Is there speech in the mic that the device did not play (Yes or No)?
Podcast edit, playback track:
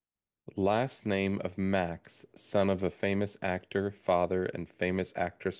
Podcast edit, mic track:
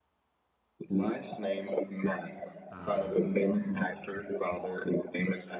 Yes